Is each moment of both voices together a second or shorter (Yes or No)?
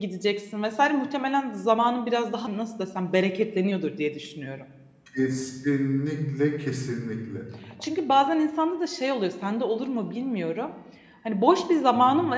Yes